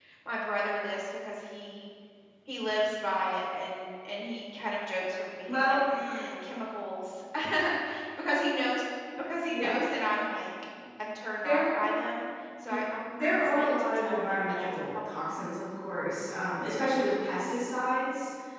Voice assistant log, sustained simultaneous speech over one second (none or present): present